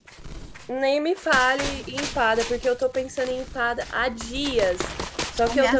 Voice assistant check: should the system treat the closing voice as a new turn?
No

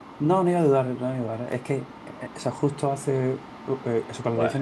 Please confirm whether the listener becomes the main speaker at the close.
No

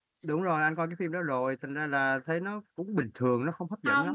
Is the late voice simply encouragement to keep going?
No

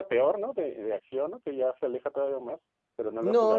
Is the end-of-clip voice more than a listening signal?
Yes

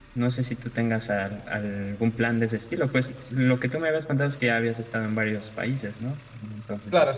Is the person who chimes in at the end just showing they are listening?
No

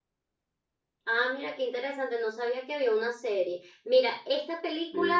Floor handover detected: No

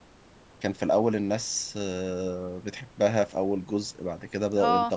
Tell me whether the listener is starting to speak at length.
No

